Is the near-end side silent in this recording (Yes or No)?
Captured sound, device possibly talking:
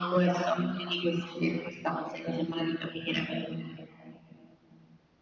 Yes